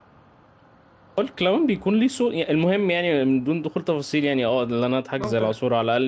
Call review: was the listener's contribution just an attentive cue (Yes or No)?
Yes